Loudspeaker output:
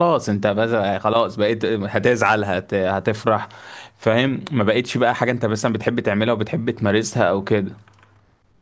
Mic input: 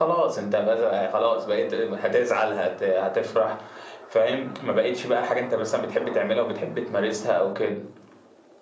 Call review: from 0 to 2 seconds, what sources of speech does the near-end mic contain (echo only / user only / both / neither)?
echo only